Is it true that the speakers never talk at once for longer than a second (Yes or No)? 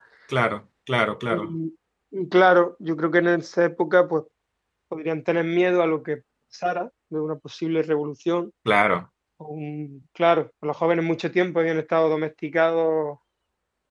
Yes